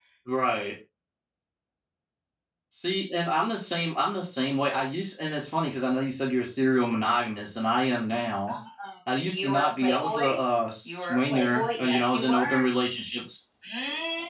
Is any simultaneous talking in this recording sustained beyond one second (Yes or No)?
Yes